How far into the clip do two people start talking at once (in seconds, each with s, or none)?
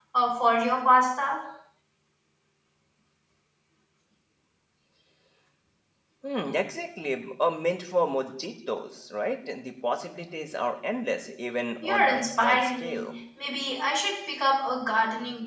11.8 s